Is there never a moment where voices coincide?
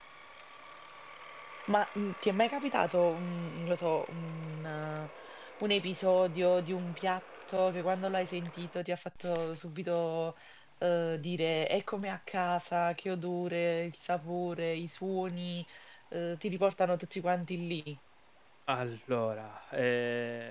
Yes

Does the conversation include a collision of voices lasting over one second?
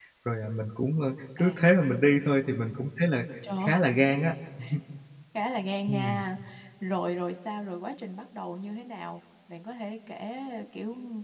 No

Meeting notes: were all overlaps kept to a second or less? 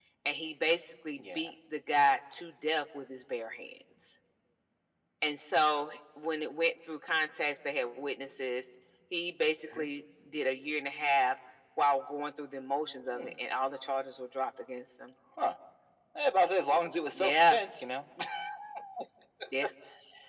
Yes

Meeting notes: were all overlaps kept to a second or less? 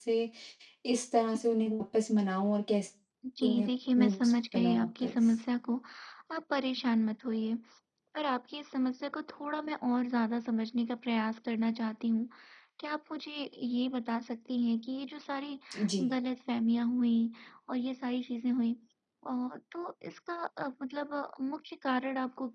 No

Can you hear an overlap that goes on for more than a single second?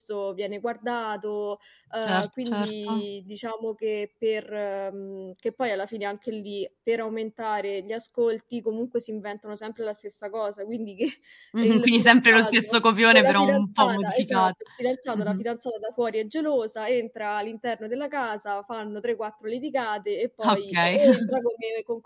Yes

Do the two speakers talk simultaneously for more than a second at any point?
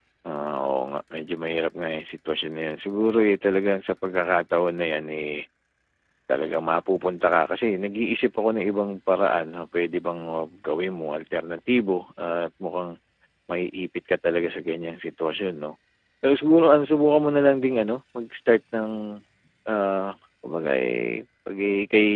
No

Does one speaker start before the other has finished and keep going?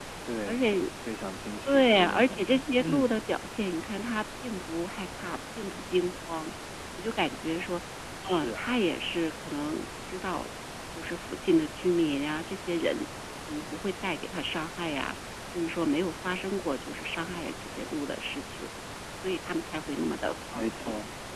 Yes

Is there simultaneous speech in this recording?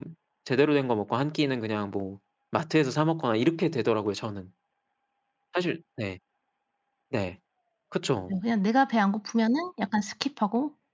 No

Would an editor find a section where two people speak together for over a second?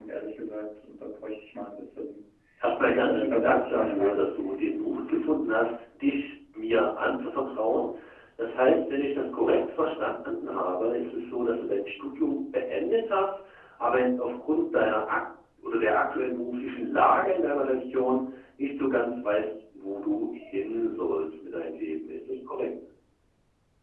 Yes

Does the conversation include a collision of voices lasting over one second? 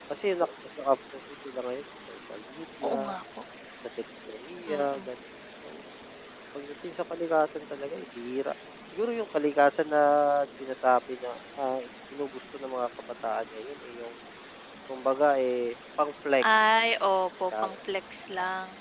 No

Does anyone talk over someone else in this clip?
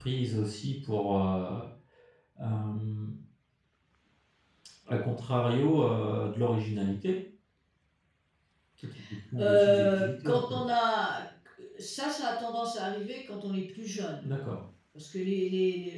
Yes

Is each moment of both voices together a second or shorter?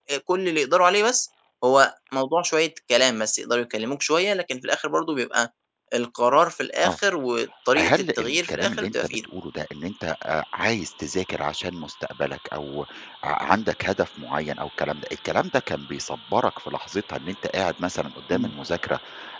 No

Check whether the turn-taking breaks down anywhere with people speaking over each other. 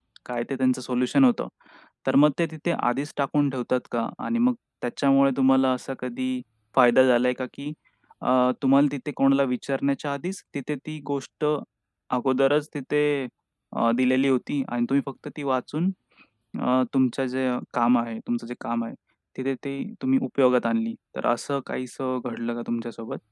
No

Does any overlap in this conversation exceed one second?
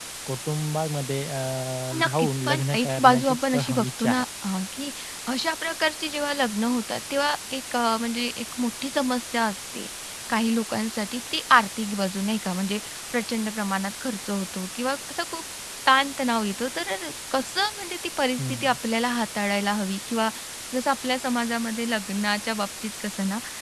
Yes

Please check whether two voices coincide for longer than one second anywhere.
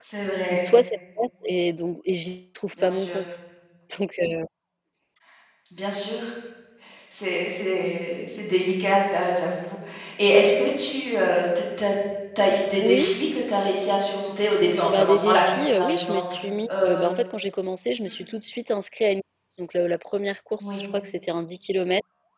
Yes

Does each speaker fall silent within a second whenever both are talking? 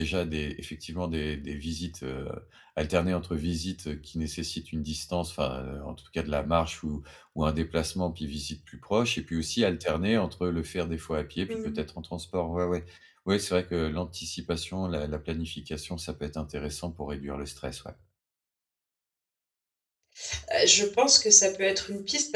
Yes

